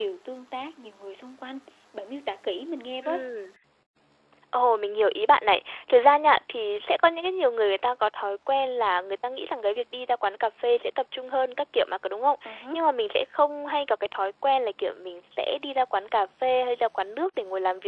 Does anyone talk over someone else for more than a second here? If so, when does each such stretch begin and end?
none

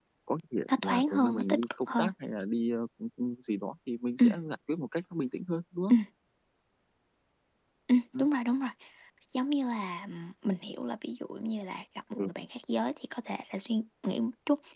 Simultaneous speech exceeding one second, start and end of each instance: 0.8-2.1

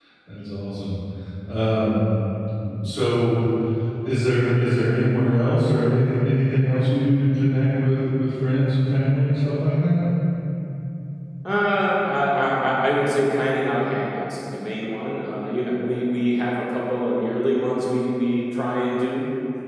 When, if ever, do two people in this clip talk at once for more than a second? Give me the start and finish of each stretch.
none

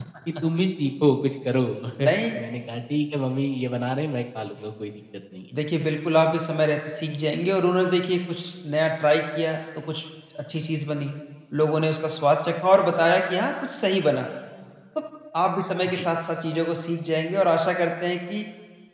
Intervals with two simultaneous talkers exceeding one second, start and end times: none

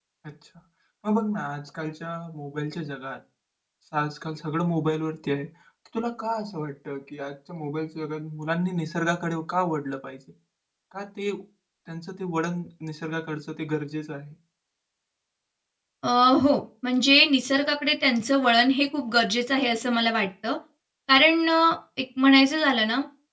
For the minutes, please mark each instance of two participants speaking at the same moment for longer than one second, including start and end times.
none

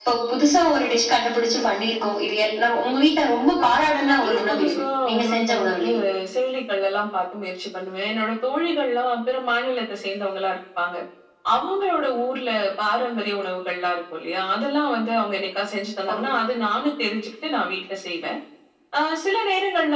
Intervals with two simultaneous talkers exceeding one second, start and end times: 3.6-5.9

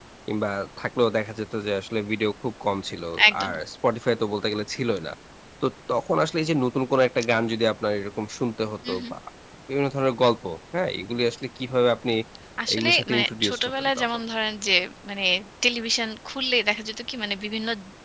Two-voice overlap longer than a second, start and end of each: 12.7-14.2

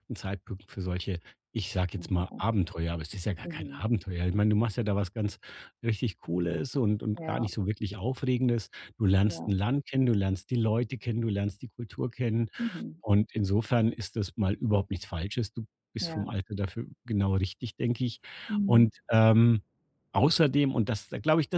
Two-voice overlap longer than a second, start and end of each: none

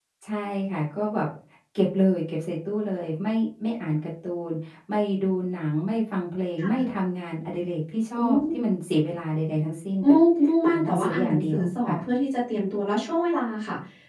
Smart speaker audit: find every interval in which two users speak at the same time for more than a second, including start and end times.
10.6-12.0

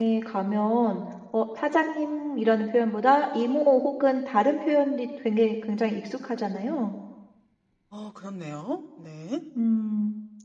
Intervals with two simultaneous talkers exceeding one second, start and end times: none

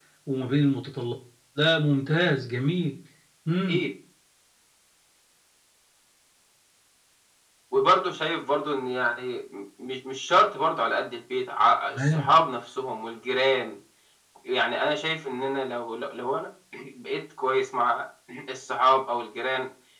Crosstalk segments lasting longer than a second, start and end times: none

